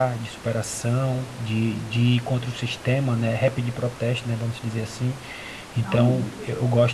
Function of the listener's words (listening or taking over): listening